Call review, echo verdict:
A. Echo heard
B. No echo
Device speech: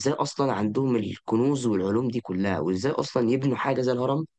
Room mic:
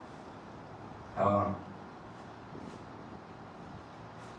B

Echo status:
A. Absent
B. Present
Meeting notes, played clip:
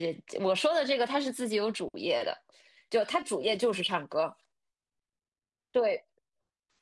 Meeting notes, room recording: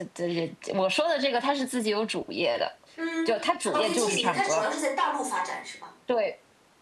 B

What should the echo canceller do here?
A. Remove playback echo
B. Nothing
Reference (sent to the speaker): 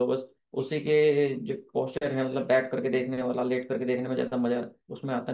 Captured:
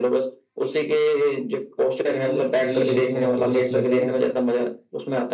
A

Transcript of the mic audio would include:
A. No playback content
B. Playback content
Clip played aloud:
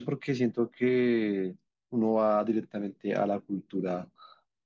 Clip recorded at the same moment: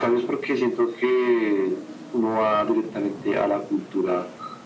B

